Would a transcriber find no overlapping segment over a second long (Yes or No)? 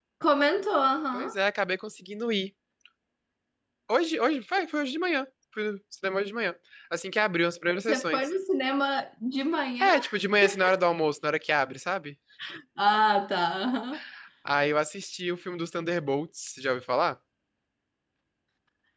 Yes